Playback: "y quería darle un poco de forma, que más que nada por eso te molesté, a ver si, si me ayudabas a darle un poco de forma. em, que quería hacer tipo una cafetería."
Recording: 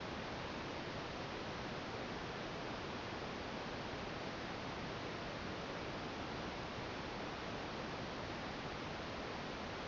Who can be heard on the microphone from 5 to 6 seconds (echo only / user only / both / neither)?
neither